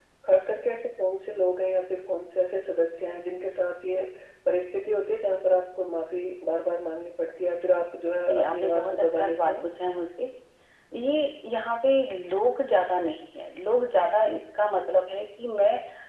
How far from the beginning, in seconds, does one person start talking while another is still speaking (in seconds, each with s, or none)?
8.3 s